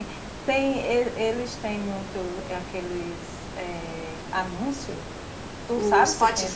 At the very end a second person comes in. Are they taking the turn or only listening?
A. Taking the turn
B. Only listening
A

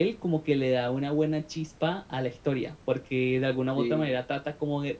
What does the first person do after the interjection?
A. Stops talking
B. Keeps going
B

